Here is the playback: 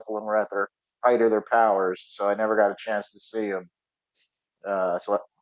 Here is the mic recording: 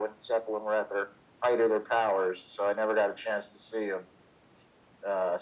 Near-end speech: none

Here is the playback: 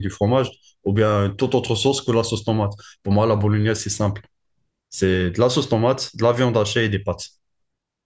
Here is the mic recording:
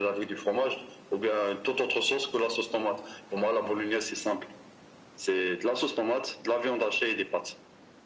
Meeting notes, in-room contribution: none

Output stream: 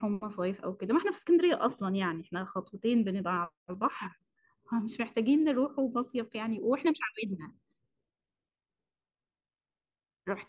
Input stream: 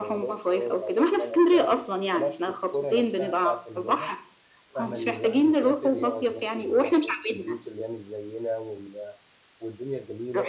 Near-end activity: present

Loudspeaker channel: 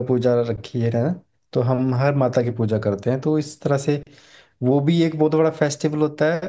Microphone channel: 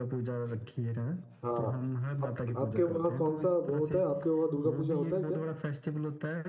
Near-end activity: present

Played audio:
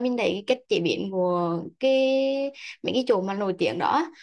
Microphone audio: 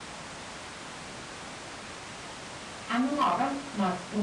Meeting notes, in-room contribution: present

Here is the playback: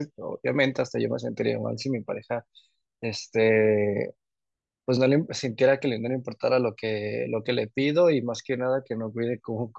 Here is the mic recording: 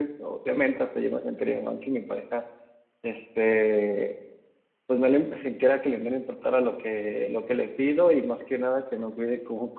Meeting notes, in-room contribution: none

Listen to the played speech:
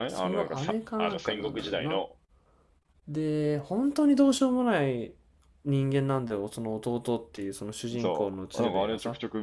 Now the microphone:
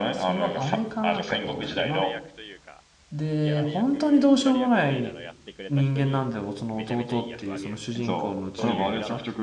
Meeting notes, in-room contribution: present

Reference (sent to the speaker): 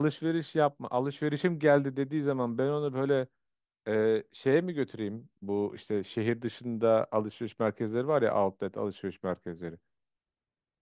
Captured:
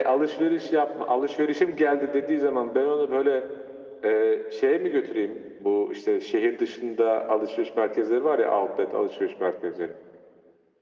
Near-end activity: none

